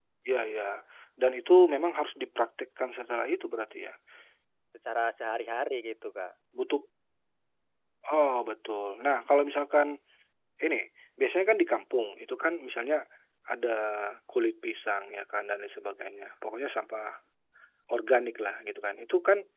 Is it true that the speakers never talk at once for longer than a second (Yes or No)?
Yes